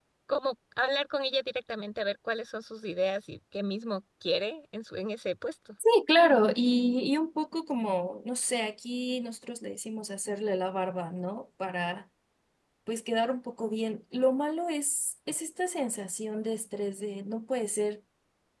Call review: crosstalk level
none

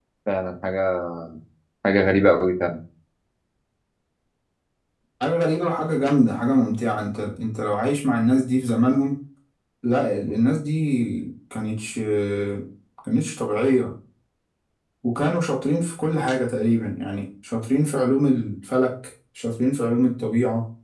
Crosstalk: none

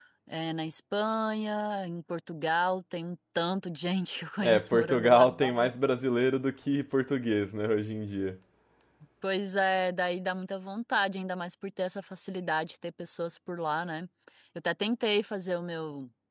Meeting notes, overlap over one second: present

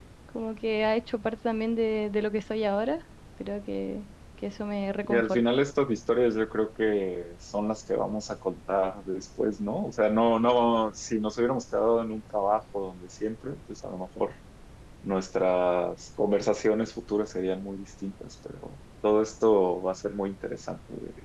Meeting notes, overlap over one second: none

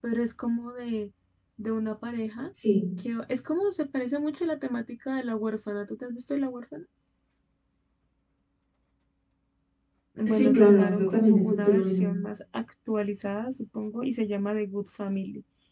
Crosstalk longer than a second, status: present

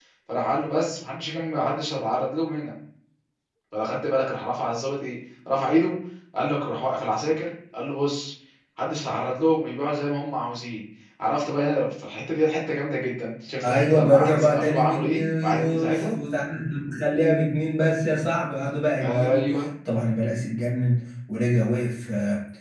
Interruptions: present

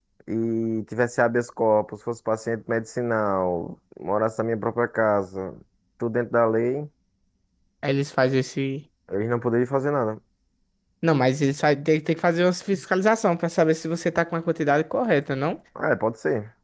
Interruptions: none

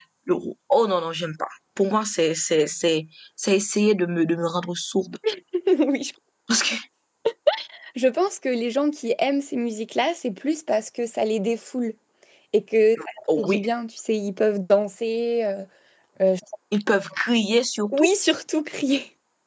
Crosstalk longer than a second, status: none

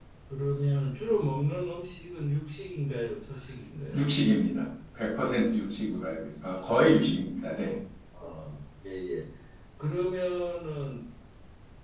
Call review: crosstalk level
none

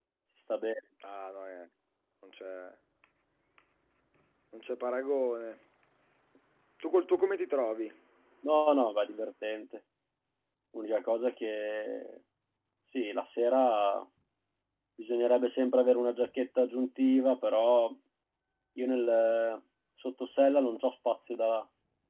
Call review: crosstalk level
none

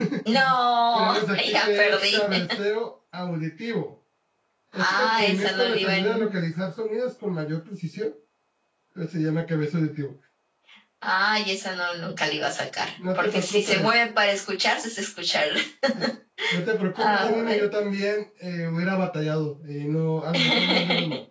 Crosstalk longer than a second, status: present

